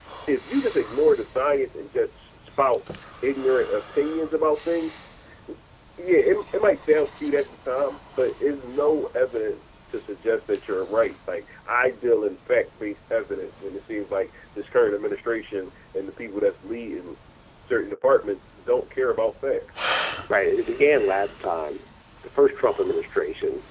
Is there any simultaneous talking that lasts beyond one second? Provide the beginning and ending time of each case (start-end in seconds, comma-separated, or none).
none